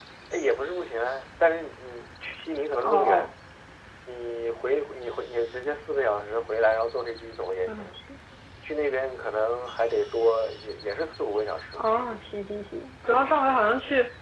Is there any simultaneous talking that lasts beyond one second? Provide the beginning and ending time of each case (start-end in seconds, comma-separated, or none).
none